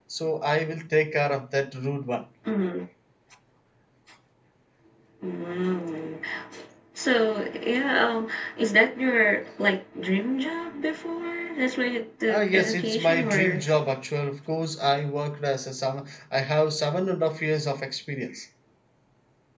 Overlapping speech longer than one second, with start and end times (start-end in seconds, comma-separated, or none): 12.3-13.6